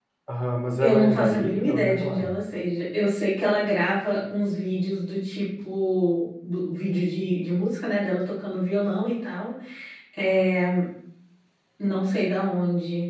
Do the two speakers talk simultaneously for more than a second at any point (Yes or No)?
Yes